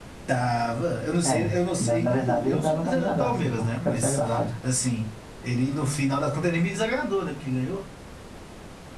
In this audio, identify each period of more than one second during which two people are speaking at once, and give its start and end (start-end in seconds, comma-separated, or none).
1.8-4.2